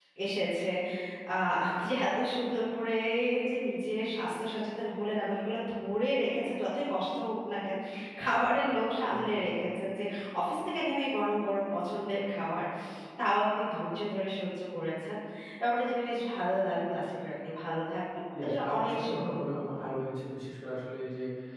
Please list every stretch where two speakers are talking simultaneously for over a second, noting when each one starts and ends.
18.4-19.9

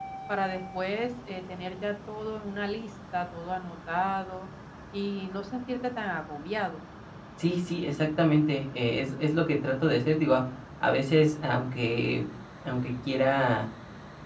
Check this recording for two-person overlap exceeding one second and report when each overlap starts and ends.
none

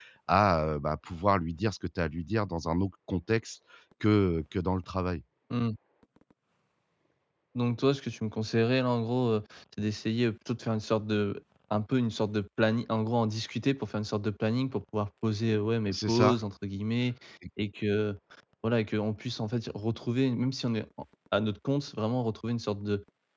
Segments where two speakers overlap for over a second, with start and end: none

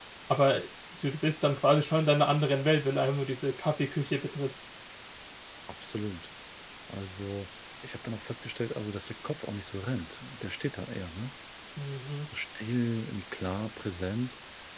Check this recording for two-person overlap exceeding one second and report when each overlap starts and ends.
none

